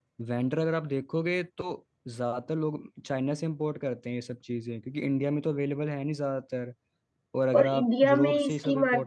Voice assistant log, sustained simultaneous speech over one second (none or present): present